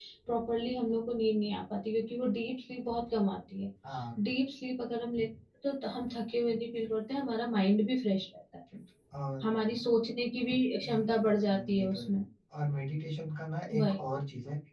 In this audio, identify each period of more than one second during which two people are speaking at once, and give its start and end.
10.9-12.1

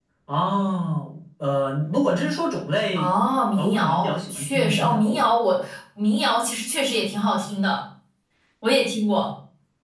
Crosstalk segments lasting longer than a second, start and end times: 3.6-5.2

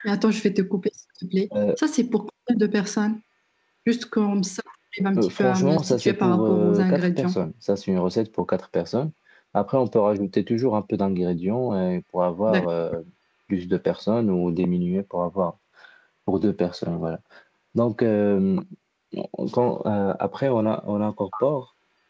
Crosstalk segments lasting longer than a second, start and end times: 5.2-7.4

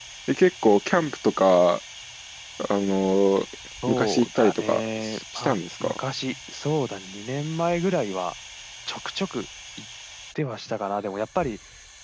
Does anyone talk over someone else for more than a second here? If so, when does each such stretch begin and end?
3.9-6.0

